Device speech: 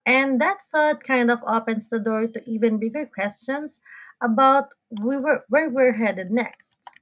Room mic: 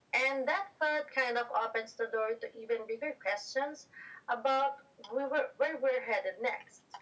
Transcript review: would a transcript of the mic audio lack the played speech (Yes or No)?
No